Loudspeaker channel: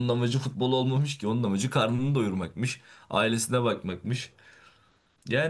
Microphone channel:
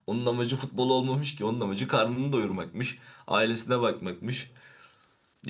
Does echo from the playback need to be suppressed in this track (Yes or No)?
Yes